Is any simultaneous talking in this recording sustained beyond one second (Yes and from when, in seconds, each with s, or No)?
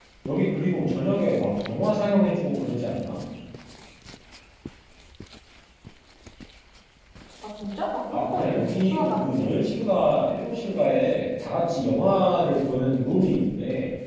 Yes, from 8.1 s